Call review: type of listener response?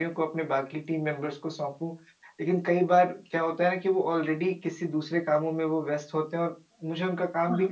listening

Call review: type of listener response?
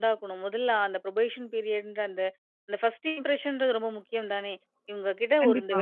listening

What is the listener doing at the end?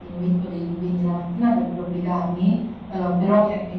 listening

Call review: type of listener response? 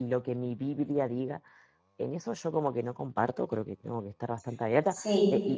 listening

